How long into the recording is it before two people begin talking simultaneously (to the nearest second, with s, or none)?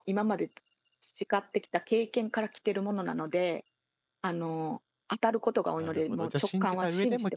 6 s